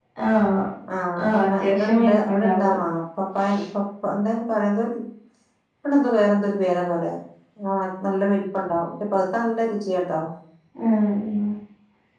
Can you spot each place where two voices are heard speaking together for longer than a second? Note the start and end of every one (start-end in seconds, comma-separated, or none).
1.2-2.8